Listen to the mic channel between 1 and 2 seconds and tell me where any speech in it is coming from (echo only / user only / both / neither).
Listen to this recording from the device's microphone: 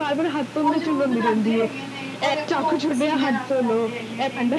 both